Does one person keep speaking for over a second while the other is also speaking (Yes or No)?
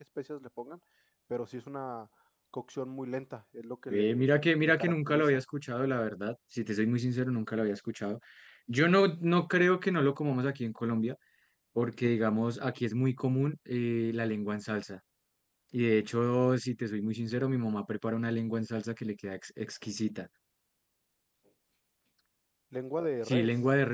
Yes